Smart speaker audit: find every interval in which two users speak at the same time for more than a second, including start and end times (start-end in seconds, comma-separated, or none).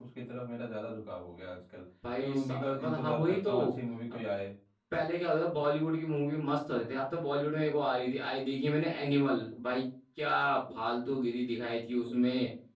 2.2-3.5